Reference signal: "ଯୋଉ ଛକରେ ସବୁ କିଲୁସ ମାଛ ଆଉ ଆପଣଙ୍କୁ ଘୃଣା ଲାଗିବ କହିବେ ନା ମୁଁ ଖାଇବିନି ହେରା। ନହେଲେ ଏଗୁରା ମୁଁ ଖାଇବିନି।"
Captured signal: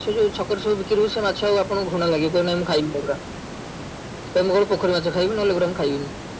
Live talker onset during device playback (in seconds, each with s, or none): none